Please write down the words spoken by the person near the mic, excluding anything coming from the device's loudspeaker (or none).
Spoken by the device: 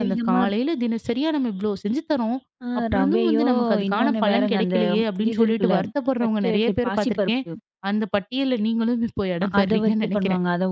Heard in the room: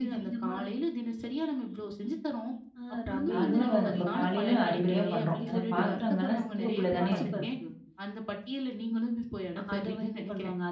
நார்மலா வ நம்ம காலையில அறிபறியா பண்றோம். அந்த பாத்திரங்கள்லாம் சிங்க்குக்குள்ள தானே இருக்கும்.